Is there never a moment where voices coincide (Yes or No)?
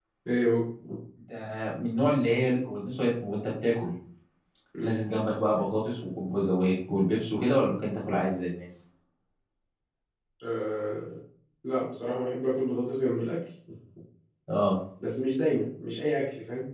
Yes